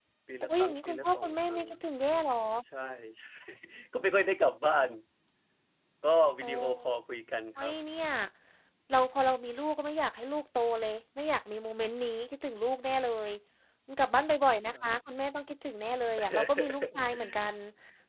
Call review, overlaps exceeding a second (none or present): present